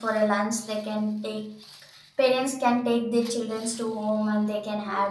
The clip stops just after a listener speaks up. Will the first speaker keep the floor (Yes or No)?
No